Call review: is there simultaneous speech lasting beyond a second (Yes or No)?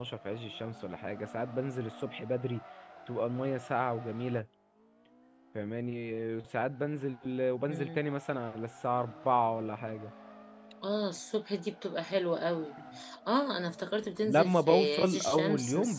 Yes